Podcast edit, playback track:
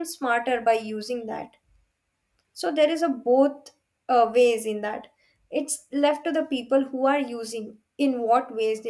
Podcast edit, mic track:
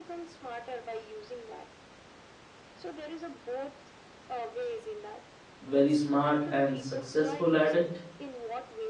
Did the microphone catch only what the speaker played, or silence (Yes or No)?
No